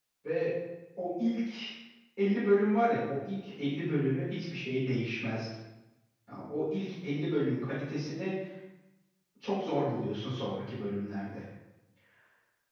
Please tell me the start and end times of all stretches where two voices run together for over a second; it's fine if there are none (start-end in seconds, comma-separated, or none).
none